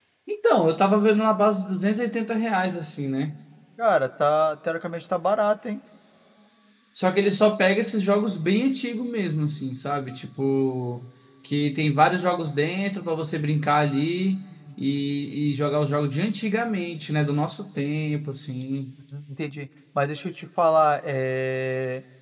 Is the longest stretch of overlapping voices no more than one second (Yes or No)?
Yes